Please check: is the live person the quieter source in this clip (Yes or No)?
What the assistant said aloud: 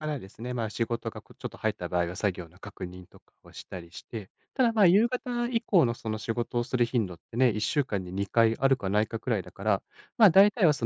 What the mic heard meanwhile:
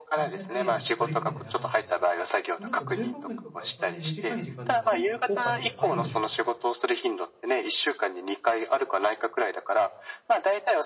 Yes